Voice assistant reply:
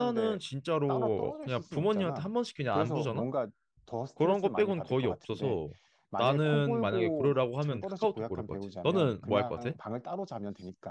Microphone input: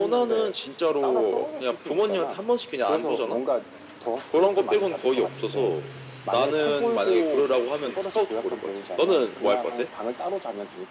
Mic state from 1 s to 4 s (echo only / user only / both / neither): echo only